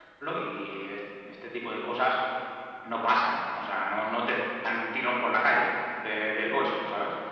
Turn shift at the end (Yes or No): No